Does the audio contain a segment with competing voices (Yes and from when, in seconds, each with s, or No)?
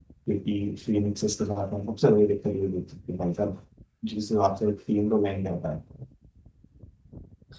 No